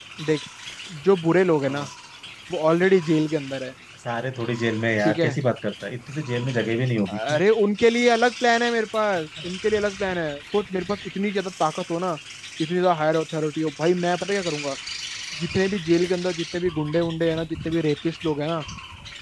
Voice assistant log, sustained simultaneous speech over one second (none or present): none